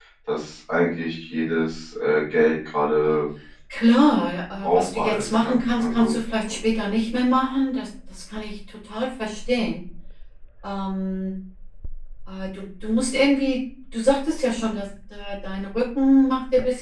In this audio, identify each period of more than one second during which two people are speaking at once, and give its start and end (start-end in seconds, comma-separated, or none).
4.6-6.1